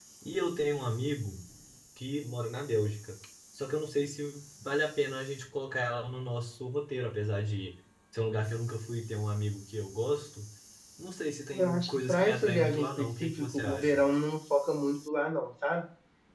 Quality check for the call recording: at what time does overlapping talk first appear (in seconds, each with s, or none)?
11.6 s